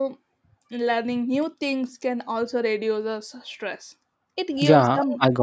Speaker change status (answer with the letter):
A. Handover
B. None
A